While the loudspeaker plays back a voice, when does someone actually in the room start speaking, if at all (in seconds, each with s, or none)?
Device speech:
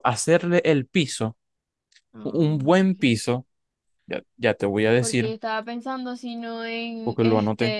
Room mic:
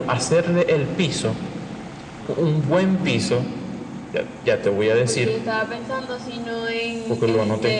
none